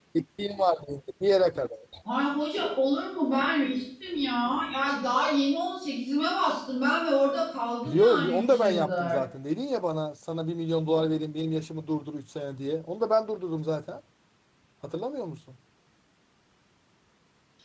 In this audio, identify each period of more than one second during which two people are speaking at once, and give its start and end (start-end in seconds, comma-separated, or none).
7.8-9.2